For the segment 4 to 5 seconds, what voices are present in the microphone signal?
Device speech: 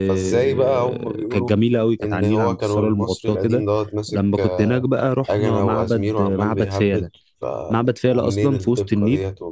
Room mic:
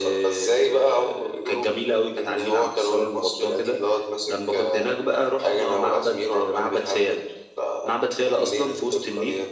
echo only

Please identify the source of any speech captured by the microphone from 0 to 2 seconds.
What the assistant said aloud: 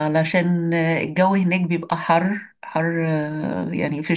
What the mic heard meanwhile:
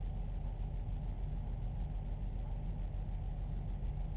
neither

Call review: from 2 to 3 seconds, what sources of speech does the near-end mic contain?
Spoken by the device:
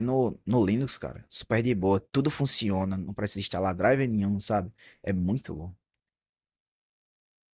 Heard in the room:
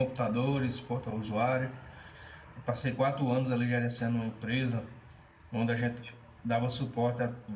user only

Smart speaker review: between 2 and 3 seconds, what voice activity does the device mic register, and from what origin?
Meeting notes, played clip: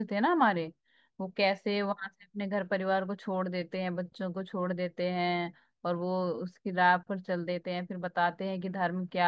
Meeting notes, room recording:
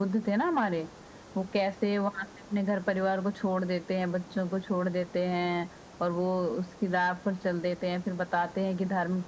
echo only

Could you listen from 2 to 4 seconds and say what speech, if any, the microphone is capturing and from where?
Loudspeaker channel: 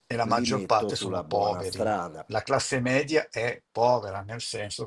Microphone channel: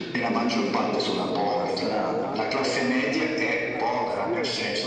both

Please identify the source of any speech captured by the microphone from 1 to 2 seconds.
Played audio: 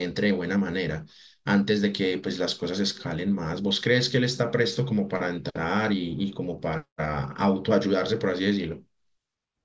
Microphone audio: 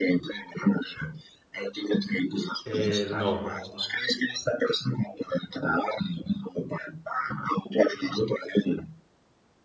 echo only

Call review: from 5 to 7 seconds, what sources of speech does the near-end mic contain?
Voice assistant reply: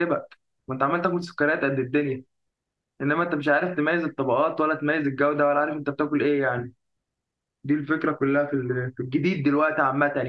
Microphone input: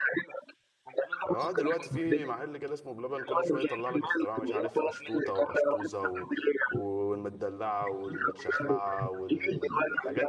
both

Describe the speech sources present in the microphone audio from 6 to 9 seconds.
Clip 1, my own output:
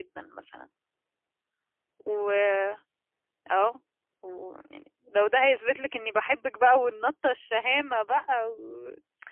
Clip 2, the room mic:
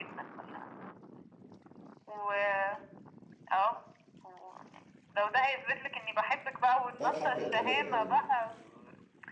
both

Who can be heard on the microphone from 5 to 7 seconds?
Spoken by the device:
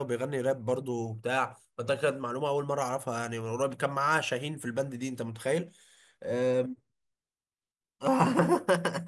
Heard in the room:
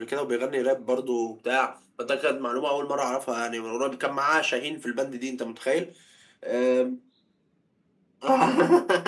echo only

